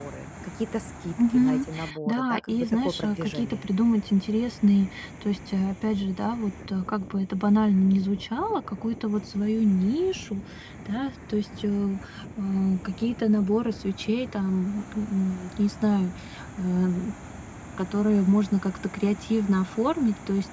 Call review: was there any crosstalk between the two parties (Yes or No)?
Yes